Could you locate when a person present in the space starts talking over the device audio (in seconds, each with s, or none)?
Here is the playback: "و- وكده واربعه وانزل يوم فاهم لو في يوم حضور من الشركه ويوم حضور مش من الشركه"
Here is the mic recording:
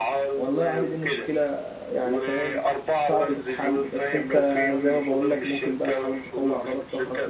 0.3 s